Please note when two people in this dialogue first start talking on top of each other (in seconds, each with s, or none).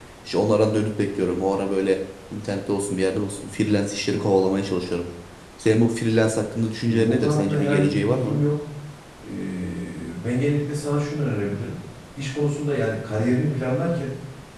6.8 s